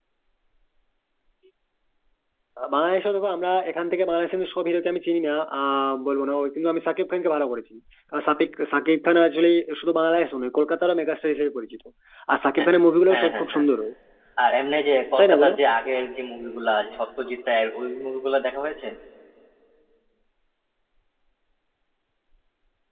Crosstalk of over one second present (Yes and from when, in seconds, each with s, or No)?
No